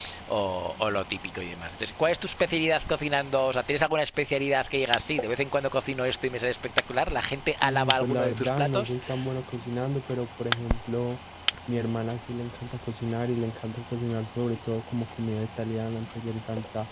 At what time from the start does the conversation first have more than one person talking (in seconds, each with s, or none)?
7.6 s